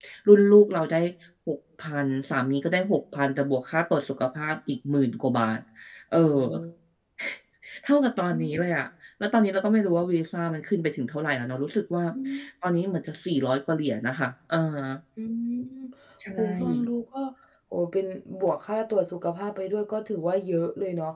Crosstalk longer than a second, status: none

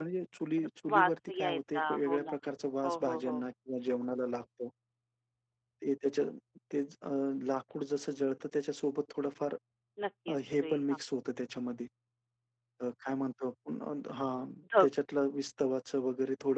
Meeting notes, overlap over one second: present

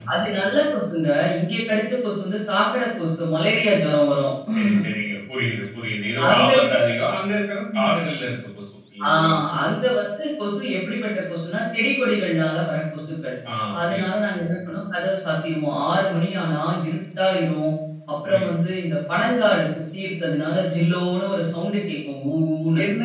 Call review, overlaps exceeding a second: none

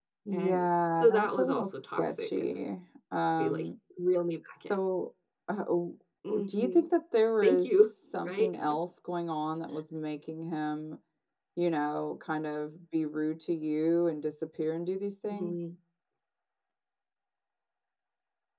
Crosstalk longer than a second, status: present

